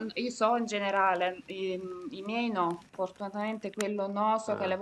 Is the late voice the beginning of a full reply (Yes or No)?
No